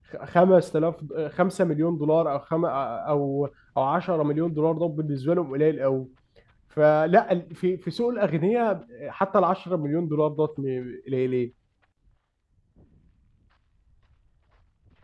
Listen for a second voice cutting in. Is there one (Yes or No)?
No